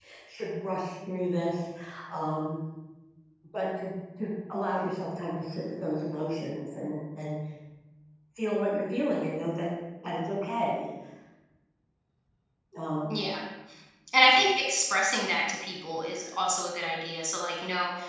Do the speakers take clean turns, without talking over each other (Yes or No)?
Yes